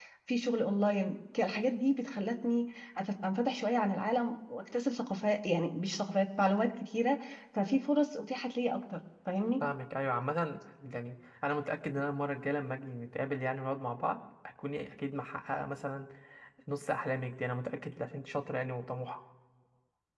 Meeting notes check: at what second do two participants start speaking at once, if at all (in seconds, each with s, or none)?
none